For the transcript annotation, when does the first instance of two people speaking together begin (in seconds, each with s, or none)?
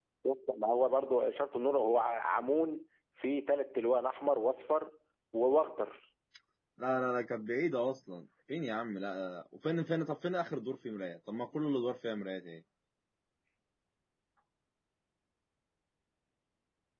none